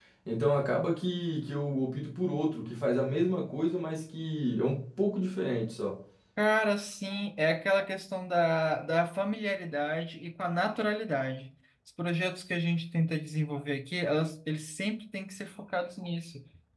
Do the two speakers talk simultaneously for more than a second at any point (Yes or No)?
No